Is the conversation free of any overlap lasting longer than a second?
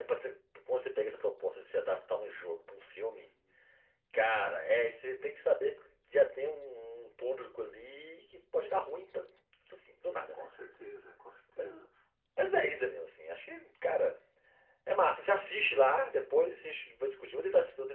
Yes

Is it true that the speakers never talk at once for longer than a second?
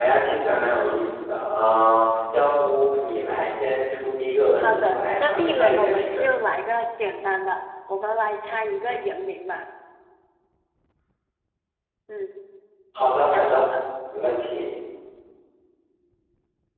No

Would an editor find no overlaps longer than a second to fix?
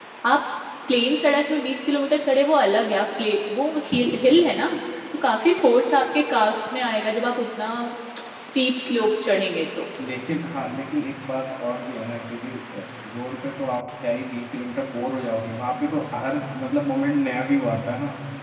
Yes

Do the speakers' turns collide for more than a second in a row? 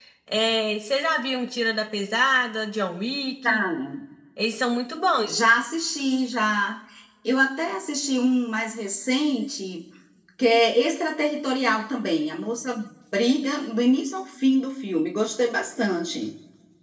No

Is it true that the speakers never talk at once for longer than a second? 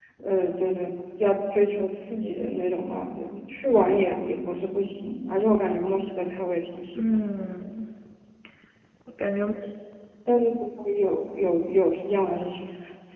Yes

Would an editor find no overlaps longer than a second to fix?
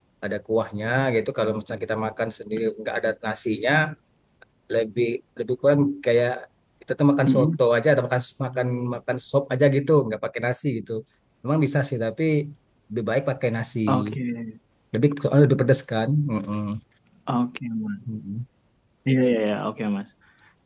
Yes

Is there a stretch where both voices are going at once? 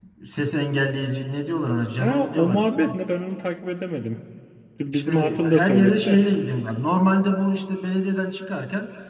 Yes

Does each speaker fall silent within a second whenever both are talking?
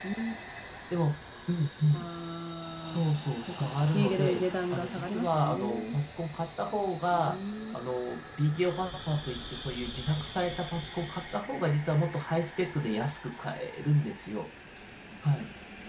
No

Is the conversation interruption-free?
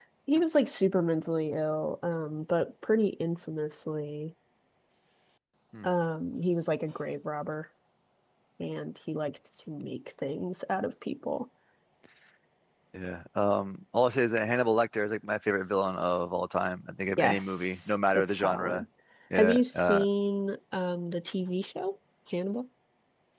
No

